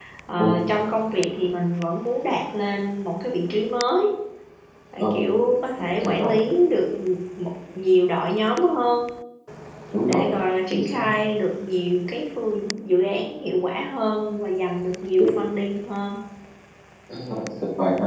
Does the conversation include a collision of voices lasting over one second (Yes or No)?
No